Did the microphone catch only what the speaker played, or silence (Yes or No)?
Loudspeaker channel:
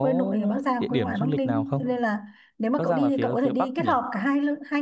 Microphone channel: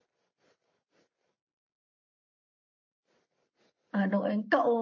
No